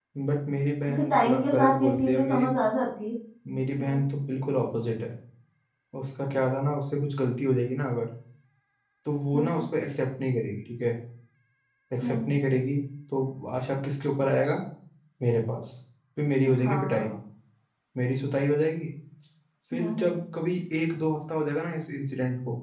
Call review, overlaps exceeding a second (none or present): present